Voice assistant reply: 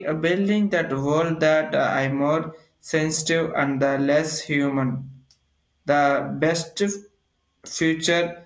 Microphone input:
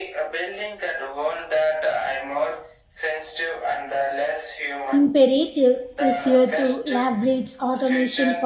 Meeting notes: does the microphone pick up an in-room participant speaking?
Yes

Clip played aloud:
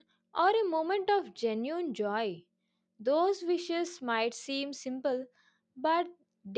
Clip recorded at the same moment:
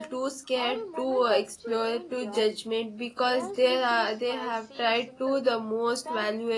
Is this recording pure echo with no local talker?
No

